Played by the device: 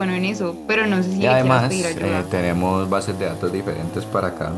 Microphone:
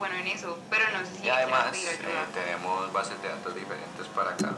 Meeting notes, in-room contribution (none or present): none